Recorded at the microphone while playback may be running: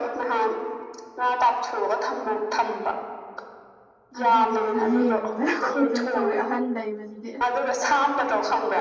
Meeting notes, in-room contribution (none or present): present